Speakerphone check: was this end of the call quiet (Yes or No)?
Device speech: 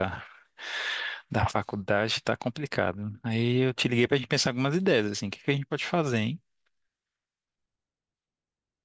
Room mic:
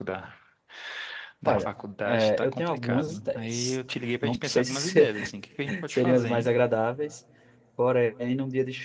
No